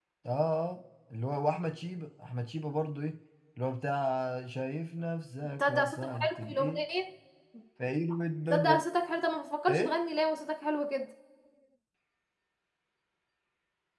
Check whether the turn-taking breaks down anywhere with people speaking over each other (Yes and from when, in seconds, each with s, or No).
Yes, from 5.6 s